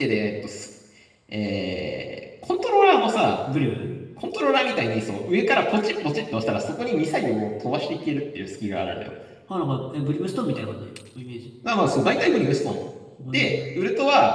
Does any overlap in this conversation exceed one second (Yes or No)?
No